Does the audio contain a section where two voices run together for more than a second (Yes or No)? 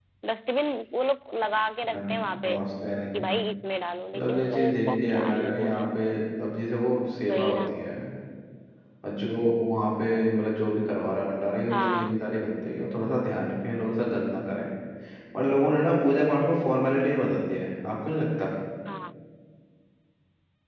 Yes